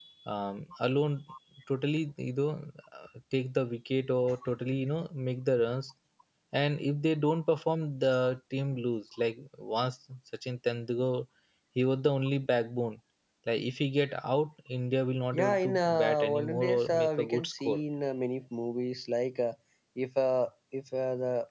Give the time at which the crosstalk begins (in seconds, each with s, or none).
15.3 s